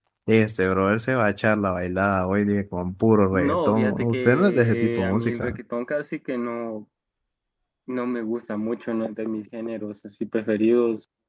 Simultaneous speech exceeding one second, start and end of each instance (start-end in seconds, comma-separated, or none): 3.3-5.6